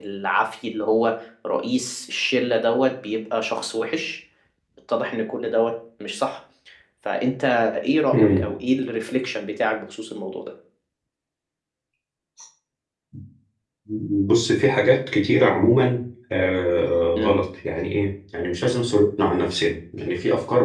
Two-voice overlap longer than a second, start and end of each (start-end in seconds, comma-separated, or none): none